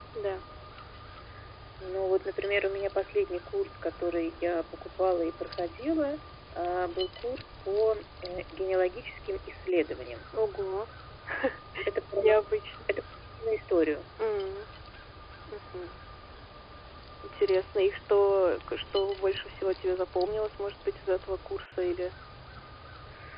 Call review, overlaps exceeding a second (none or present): none